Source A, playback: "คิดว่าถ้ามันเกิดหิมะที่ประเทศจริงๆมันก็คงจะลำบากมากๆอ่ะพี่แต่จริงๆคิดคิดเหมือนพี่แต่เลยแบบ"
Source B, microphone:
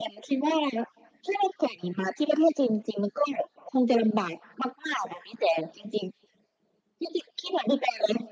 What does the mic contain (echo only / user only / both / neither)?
echo only